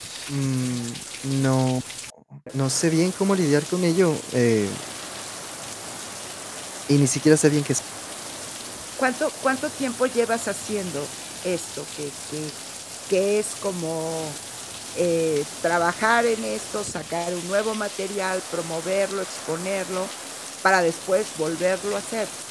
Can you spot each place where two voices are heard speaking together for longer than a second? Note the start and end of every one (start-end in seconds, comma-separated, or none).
none